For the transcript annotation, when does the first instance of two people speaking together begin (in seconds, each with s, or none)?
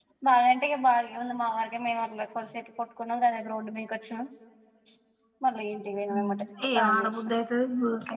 6.1 s